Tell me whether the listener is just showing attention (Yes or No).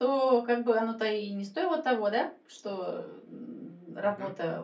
Yes